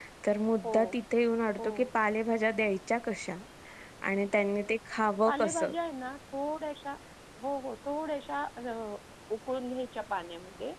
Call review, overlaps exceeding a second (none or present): none